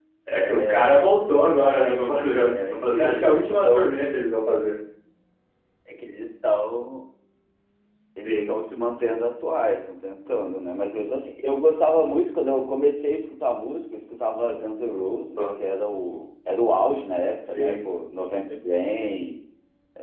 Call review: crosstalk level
present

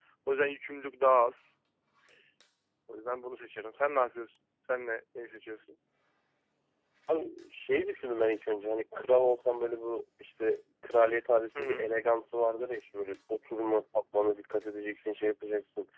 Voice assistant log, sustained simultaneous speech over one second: none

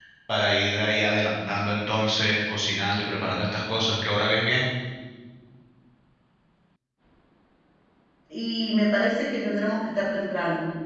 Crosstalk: none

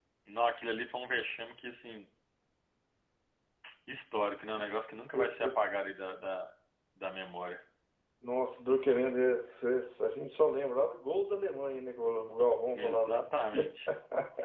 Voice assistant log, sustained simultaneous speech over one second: none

